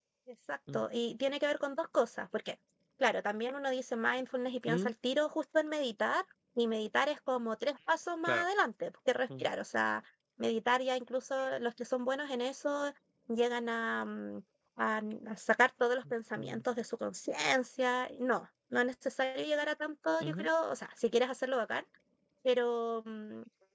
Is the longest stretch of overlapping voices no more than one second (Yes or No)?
Yes